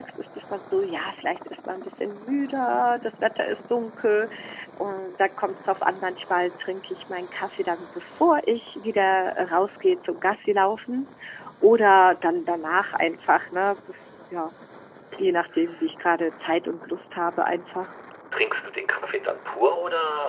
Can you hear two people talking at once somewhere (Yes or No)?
No